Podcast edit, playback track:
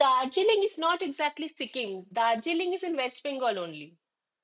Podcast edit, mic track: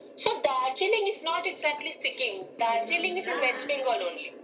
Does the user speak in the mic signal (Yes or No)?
Yes